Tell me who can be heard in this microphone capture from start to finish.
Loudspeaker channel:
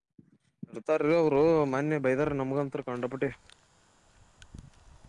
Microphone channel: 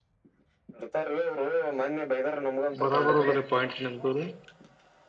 both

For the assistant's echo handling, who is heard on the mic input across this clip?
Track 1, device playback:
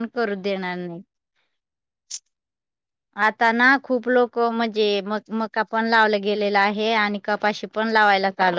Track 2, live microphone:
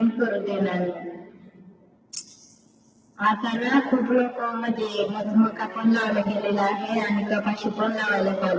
echo only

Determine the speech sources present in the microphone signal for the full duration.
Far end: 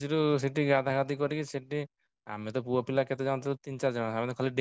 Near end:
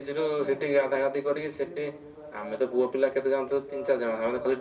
both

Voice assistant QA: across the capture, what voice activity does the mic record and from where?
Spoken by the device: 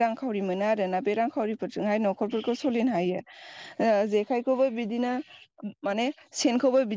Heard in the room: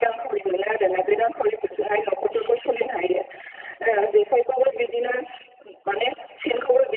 echo only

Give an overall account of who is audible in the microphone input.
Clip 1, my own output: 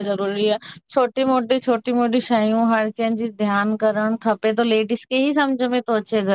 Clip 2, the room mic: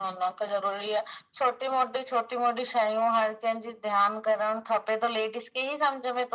echo only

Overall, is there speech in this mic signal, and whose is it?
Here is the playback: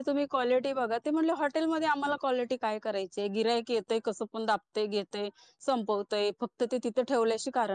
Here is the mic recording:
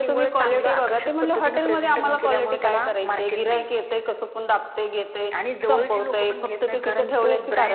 both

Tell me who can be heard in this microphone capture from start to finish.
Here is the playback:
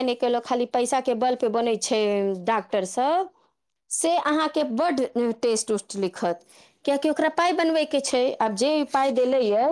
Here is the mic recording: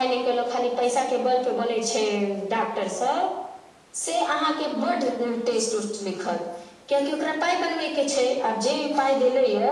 both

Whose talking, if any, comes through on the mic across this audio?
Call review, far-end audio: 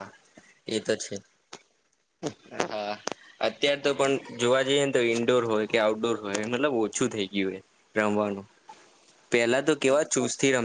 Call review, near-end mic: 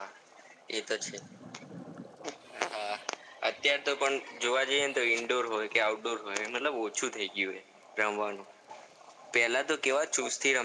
echo only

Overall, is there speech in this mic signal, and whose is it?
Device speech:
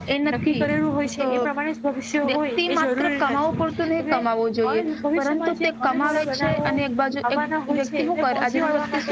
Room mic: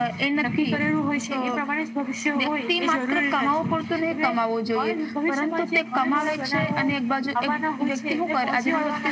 echo only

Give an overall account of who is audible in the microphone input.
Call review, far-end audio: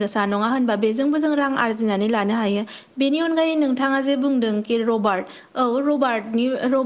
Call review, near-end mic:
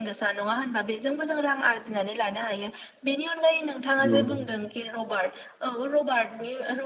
both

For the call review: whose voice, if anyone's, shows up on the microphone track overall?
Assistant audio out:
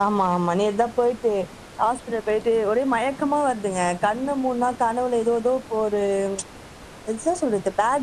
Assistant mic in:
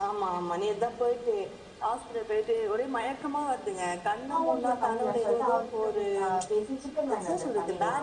both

